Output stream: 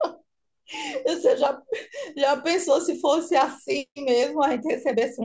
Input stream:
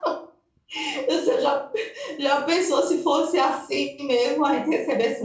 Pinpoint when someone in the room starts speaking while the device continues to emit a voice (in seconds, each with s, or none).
none